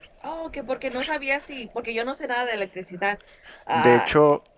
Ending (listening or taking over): taking over